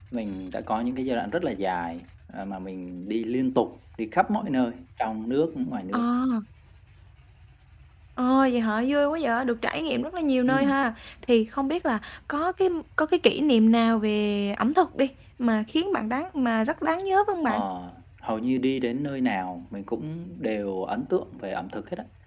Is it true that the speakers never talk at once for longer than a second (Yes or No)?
Yes